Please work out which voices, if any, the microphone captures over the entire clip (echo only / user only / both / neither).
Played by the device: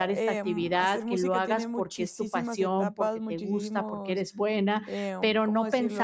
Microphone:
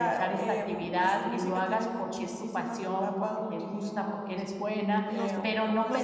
both